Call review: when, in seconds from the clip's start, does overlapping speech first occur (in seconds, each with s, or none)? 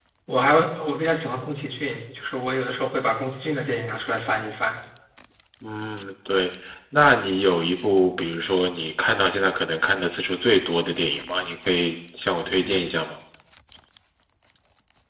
none